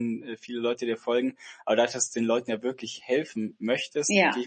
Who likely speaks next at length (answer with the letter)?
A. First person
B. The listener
A